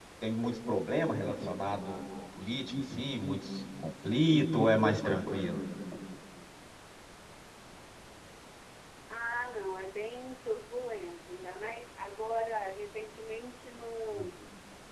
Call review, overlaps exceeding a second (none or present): none